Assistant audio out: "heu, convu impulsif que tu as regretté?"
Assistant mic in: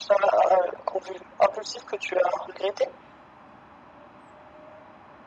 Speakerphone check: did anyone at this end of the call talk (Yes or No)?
No